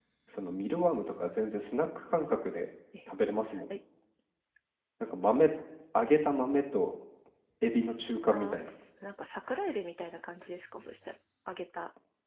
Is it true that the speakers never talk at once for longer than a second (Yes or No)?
Yes